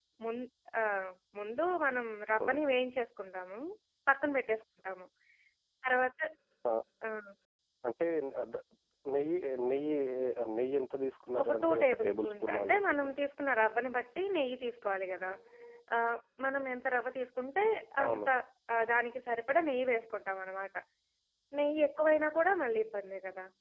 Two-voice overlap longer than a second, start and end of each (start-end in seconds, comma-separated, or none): 11.4-13.1